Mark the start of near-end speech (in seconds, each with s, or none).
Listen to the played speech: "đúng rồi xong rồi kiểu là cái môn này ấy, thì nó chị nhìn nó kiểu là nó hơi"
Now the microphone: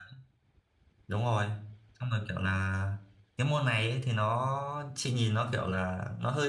none